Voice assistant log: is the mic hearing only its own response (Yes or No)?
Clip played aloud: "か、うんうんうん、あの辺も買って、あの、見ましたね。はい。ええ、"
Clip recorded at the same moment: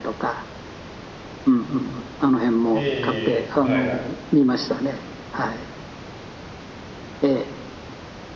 No